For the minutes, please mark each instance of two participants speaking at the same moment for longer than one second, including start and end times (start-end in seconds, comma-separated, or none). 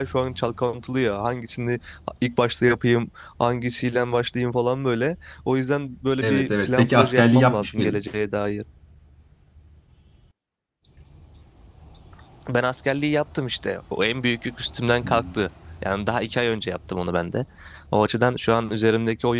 6.2-8.0